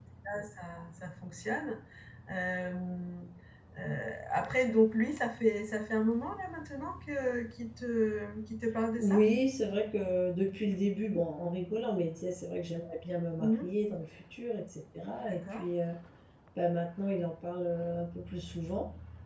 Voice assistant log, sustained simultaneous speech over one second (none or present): none